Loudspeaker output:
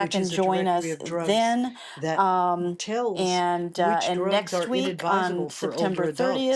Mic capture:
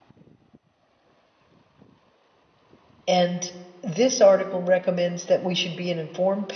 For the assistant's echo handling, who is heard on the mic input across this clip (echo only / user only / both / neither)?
user only